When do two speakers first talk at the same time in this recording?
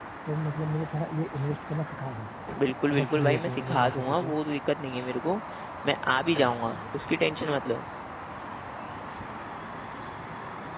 2.9 s

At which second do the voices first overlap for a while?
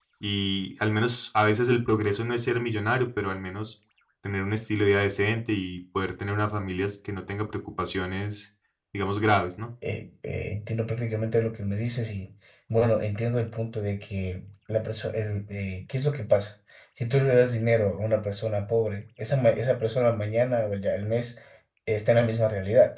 none

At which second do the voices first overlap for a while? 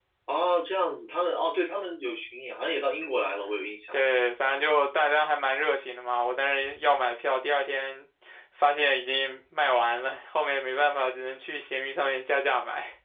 none

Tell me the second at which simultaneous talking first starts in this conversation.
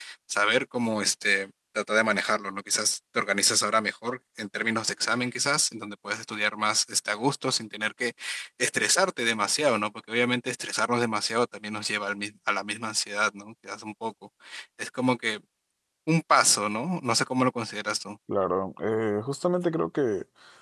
none

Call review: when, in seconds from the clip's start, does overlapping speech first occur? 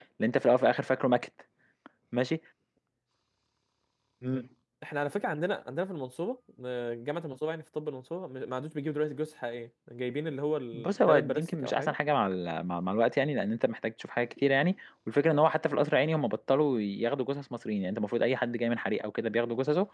10.7 s

